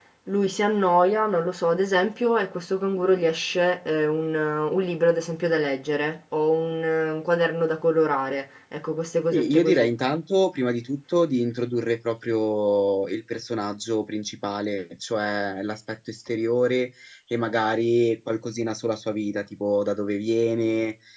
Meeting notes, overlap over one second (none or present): none